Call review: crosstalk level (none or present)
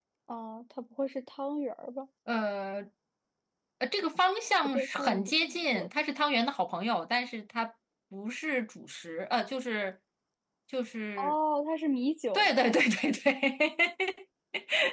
present